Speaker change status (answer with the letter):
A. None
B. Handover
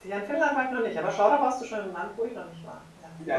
B